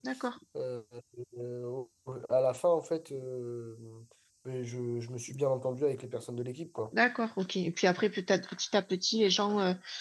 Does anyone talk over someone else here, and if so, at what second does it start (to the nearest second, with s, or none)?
none